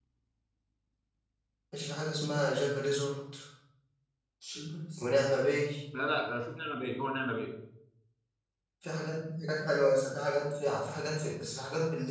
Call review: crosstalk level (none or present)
none